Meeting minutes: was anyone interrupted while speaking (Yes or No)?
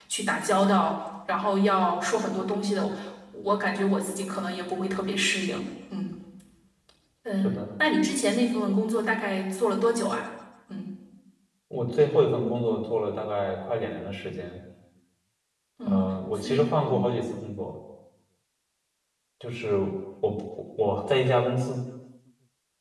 Yes